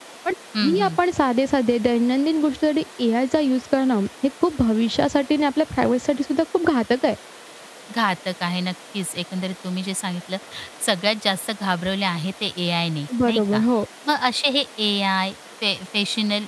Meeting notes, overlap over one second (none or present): none